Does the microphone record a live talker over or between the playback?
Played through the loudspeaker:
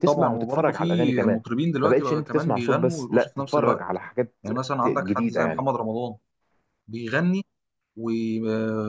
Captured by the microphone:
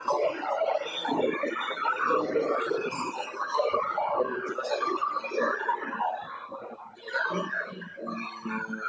No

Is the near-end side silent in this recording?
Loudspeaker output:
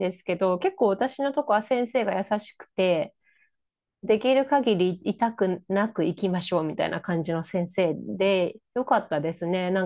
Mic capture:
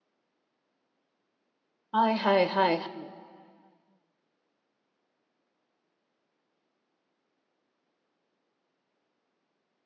No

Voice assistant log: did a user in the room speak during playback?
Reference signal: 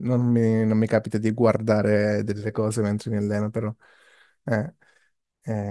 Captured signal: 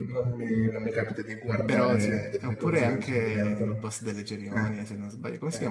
Yes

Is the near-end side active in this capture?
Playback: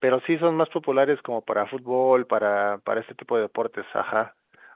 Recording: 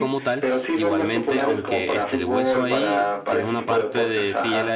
Yes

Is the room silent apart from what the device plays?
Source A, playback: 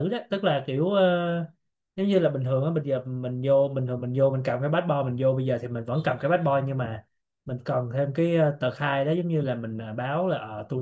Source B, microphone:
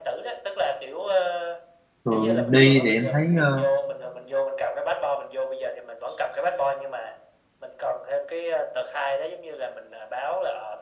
No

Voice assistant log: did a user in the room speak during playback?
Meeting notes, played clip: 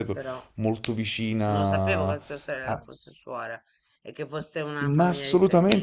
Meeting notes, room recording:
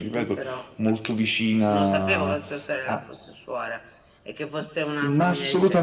No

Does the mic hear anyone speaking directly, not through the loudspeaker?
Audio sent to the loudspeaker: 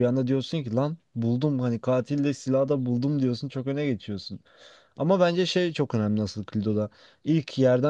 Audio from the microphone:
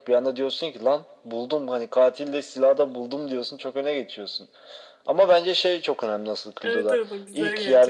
Yes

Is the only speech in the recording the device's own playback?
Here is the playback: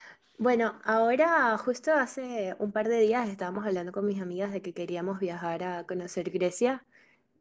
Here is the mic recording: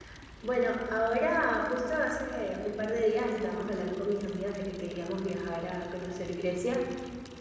Yes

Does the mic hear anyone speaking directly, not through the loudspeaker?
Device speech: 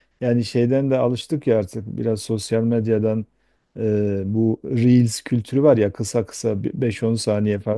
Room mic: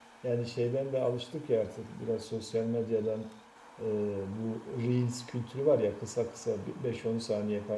No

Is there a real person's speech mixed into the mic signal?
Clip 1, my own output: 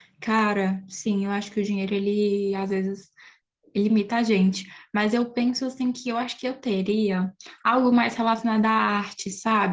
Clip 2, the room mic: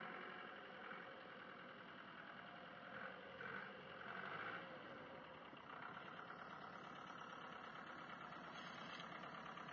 No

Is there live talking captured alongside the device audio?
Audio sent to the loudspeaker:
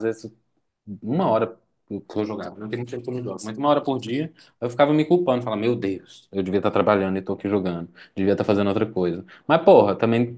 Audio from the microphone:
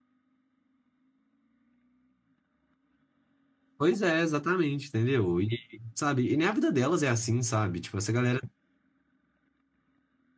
Yes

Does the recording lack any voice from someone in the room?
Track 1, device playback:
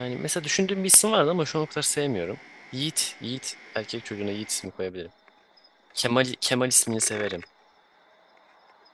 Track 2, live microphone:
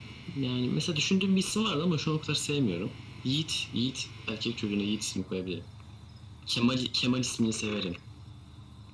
Yes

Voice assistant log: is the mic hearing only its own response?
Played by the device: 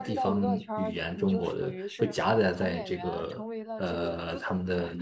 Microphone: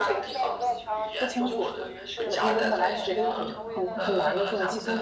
No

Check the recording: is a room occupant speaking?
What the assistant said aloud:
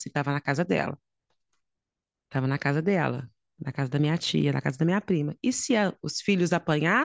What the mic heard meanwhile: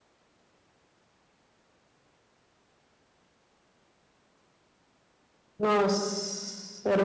Yes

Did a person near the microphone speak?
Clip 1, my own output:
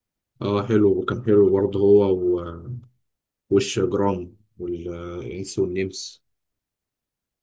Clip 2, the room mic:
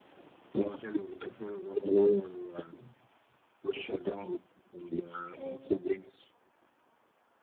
Yes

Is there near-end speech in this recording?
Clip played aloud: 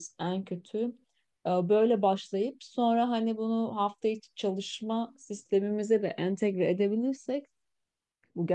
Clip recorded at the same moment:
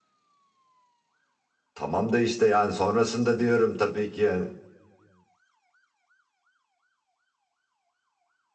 Yes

